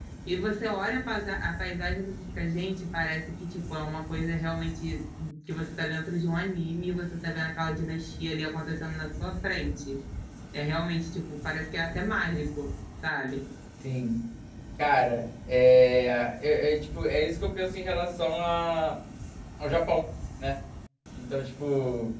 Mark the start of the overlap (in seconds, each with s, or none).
none